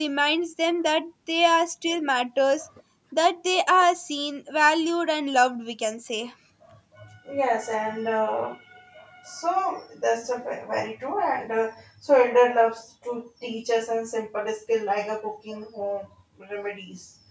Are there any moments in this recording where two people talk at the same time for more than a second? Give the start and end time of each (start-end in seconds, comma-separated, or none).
none